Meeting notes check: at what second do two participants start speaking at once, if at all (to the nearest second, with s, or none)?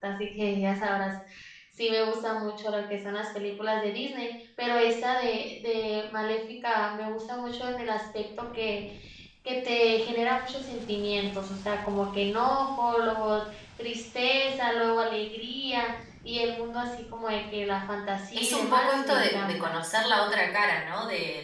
18 s